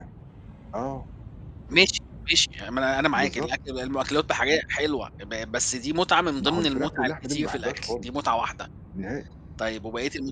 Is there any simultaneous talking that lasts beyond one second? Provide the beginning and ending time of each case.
6.4-8.1

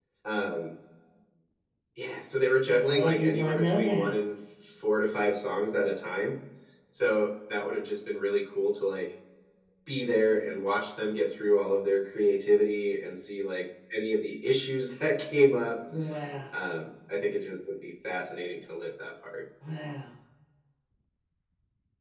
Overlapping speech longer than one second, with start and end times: 2.7-4.1

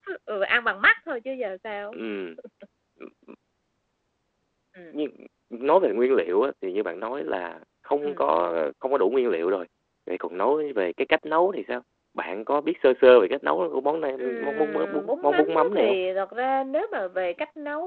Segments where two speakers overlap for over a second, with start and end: 14.2-16.0

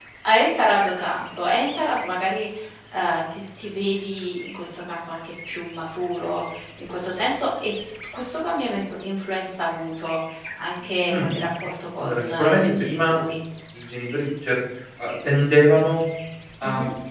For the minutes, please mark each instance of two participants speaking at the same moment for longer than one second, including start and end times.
12.0-13.2

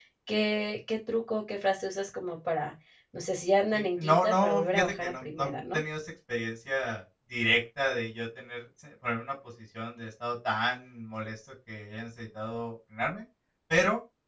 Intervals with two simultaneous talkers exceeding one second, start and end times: 3.7-5.8

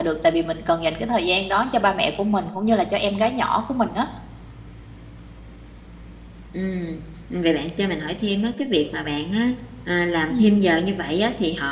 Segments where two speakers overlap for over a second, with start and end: none

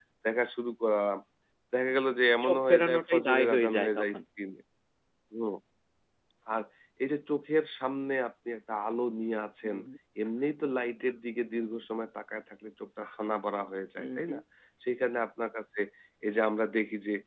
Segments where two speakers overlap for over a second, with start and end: 2.4-4.2

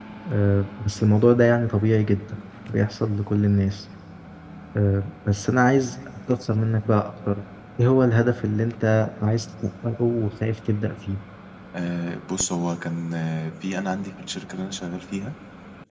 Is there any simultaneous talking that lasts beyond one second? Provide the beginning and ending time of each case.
none

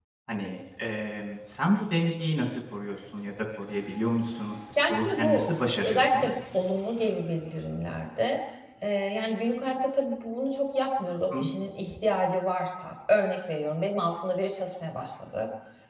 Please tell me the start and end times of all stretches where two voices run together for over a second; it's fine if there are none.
4.9-6.3

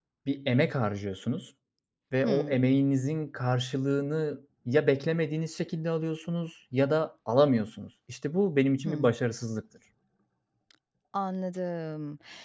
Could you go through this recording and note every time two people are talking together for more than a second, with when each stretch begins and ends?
none

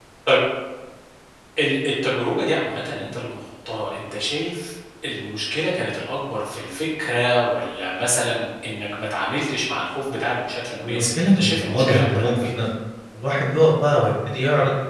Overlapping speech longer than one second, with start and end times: 10.9-12.5

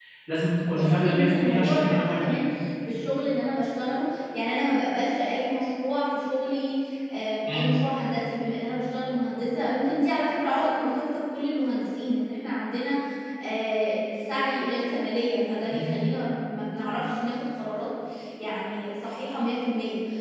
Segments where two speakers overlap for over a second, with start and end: 0.7-2.4

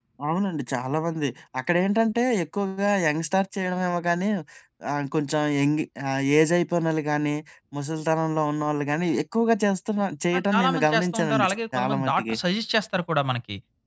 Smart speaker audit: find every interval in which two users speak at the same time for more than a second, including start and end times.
10.4-12.4

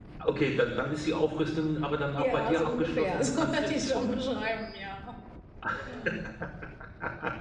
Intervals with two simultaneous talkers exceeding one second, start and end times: 2.1-4.2

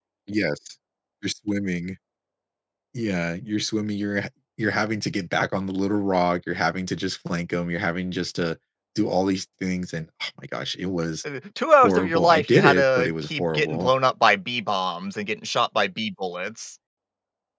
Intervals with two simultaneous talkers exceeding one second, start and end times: 11.8-13.9

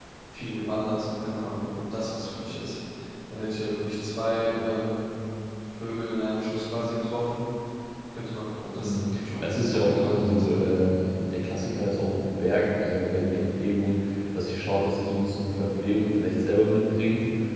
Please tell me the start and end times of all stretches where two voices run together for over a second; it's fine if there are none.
8.8-10.5

